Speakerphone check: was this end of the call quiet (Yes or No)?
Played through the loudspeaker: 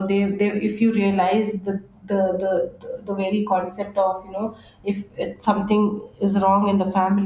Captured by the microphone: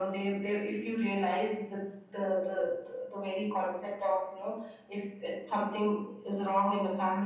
Yes